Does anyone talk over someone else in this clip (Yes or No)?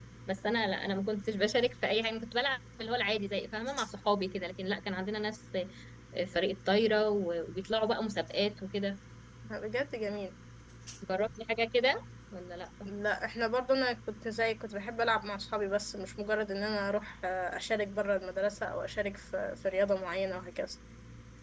No